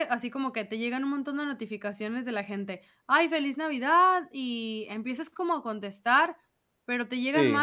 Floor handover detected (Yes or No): No